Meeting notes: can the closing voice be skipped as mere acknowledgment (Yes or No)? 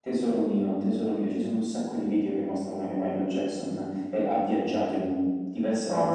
Yes